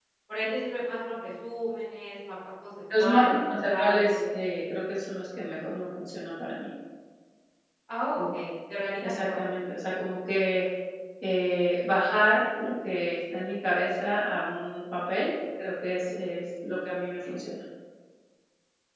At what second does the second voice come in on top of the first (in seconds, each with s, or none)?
3.0 s